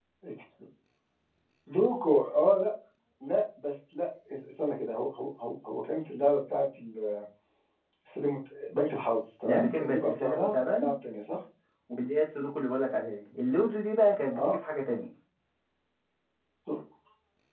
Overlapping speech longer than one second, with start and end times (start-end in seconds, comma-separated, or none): 9.5-10.9